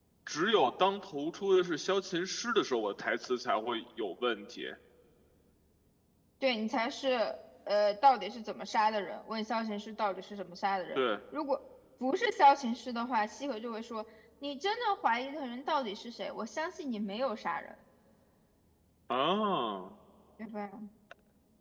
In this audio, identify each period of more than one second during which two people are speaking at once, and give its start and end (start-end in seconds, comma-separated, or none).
none